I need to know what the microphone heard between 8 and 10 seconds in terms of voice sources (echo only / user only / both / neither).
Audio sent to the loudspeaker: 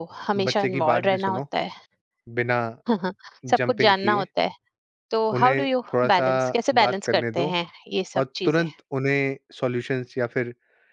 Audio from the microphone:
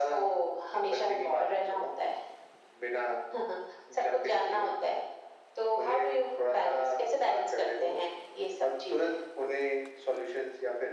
echo only